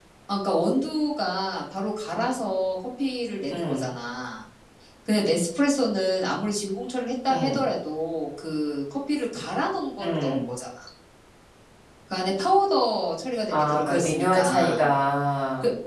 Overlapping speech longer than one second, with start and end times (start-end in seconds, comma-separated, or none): 13.5-14.8